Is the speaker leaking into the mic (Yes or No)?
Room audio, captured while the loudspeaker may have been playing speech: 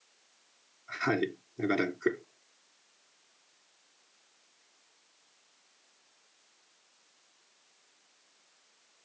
No